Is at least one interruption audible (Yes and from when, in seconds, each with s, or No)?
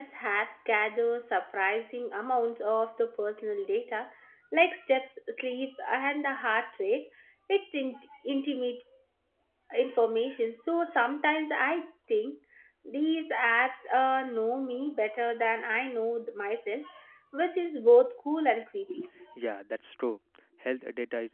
No